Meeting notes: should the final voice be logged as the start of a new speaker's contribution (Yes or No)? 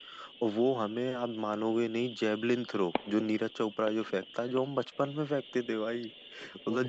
No